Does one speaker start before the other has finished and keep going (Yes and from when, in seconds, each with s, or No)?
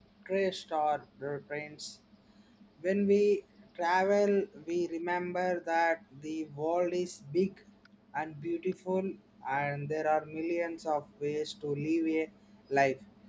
No